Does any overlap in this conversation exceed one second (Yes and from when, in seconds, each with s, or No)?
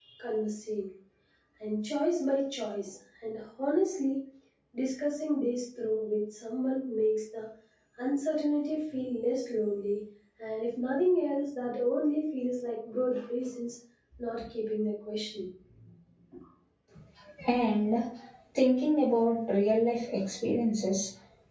No